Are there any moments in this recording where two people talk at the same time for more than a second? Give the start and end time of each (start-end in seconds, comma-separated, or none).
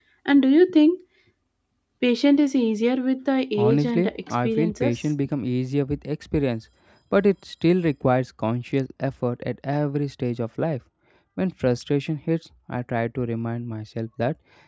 3.6-4.9